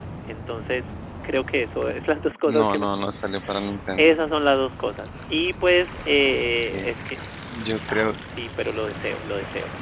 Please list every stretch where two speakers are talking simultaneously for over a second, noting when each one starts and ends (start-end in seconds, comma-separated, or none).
none